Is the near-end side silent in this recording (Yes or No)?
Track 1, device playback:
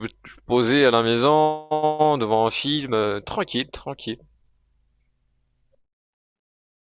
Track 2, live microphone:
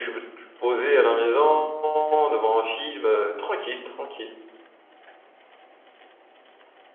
Yes